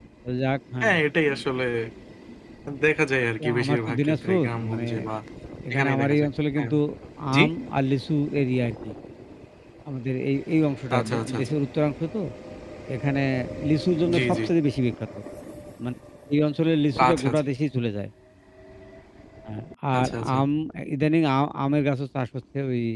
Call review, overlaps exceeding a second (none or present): present